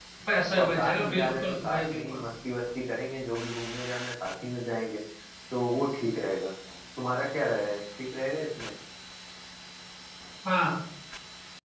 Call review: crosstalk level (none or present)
present